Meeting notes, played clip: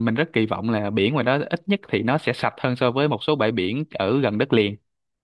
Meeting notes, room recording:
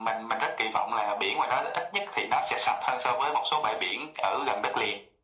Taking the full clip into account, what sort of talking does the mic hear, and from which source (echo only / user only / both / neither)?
echo only